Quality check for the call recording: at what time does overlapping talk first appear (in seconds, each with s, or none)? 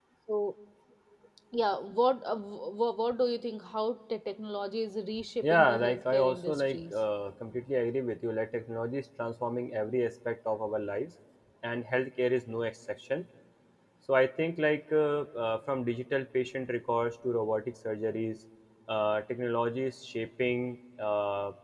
5.4 s